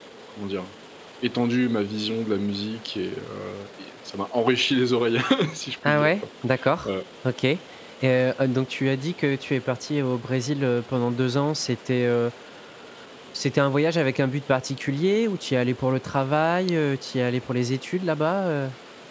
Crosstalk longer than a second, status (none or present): none